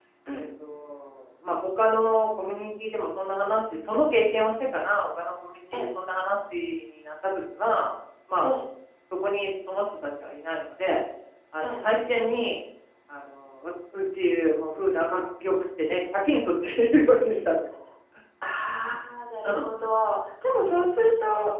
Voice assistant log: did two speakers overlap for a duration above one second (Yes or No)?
No